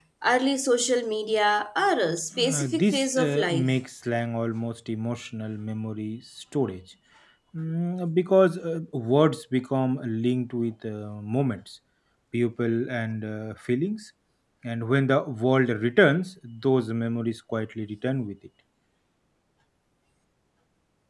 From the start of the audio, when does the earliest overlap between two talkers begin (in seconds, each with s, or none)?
2.3 s